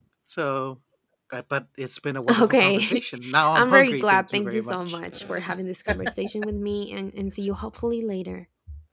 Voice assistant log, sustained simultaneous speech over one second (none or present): present